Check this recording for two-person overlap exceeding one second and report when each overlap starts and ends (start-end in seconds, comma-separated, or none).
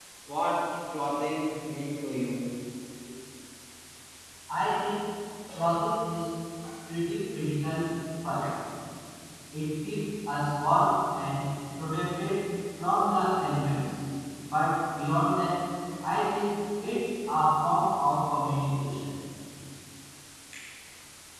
none